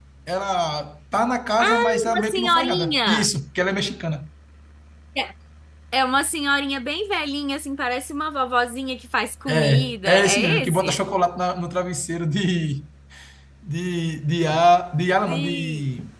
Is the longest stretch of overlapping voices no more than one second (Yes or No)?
No